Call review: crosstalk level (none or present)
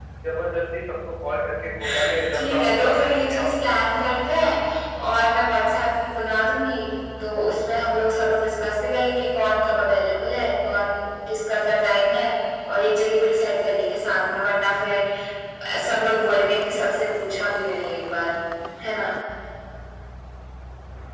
present